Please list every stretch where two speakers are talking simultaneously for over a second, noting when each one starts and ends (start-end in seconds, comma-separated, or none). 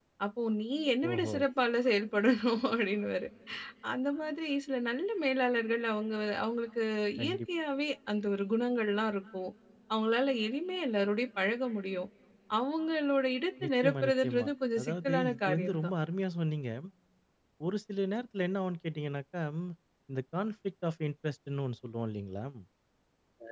13.6-15.9